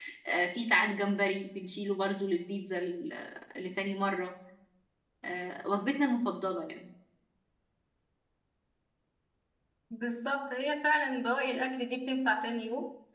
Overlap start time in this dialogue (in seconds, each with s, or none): none